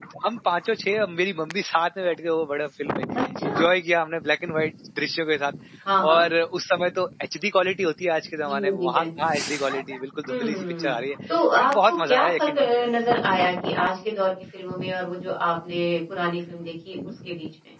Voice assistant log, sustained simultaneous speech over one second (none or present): present